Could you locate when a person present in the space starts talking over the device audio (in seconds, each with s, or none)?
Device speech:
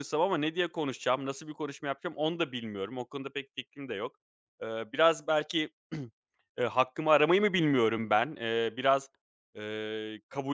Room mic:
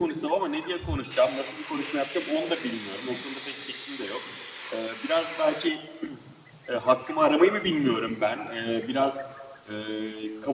none